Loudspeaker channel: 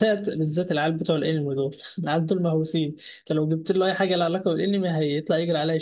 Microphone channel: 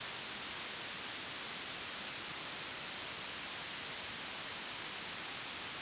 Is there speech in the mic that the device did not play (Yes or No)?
No